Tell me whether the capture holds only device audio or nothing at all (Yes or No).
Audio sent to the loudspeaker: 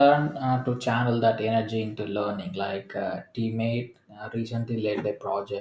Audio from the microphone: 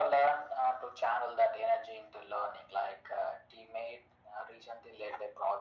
Yes